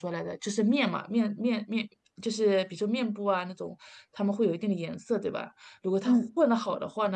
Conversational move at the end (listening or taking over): listening